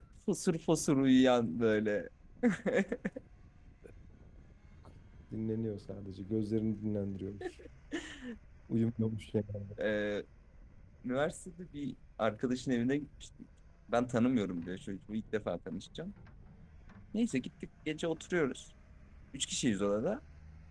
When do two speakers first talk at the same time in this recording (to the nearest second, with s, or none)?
none